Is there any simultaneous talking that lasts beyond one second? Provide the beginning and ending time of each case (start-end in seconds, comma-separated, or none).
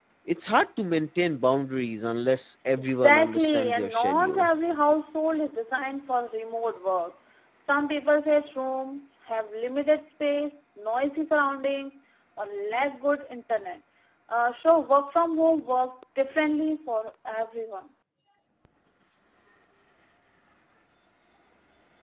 2.8-4.5